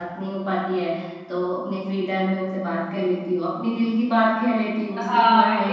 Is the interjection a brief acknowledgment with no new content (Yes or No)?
No